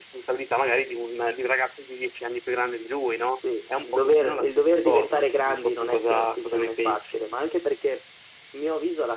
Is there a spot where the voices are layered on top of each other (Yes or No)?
Yes